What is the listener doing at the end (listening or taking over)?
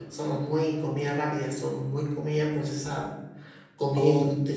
taking over